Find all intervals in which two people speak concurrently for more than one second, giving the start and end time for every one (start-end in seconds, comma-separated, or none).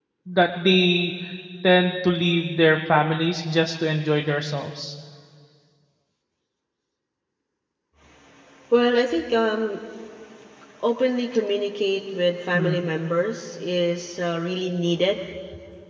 none